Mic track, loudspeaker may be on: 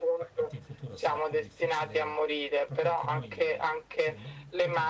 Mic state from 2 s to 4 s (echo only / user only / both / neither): both